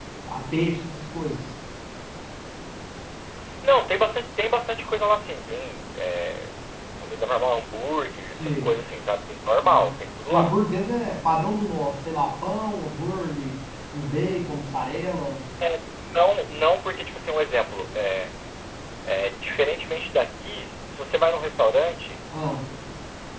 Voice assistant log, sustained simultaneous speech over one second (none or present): none